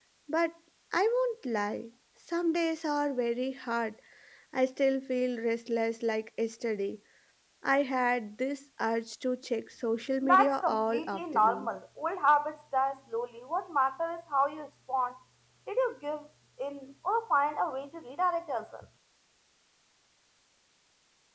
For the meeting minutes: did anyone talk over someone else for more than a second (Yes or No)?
Yes